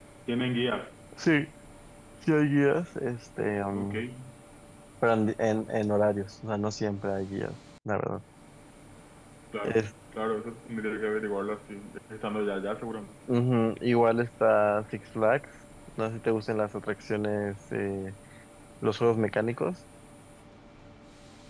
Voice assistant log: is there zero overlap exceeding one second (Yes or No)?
Yes